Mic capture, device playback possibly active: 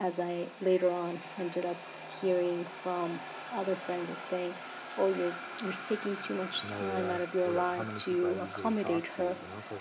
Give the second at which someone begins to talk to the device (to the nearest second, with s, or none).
7 s